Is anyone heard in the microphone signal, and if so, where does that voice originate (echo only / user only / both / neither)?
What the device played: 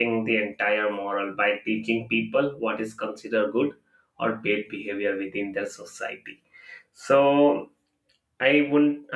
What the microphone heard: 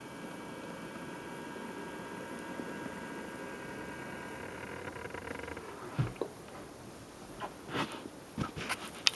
neither